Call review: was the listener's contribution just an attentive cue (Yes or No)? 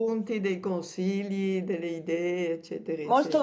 No